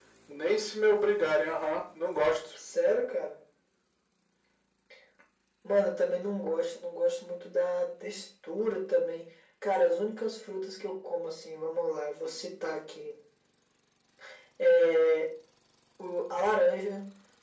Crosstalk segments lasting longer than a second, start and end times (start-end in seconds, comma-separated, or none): none